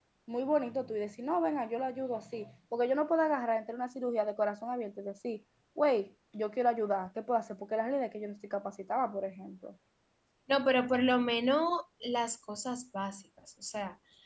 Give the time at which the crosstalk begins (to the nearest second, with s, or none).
none